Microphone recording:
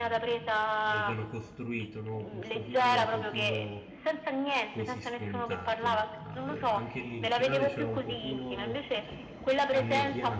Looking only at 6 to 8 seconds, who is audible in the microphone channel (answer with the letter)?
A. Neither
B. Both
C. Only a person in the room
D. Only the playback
B